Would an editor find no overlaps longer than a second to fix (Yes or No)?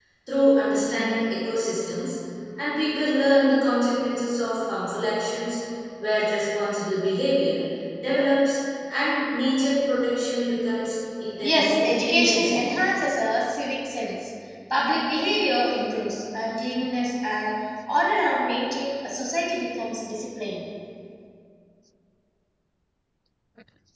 No